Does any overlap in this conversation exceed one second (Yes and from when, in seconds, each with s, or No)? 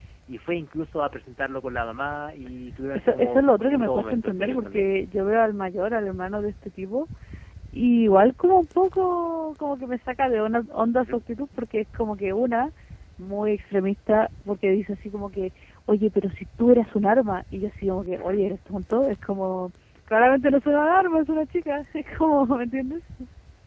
Yes, from 2.9 s